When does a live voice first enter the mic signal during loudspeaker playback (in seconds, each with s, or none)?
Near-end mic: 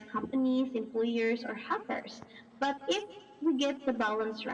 none